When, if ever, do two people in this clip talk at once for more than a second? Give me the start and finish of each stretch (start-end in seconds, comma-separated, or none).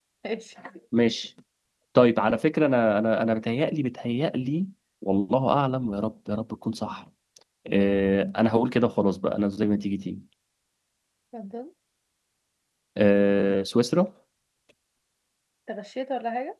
none